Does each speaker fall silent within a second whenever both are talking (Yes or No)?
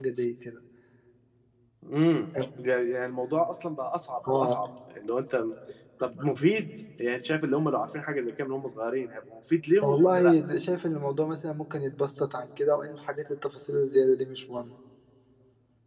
Yes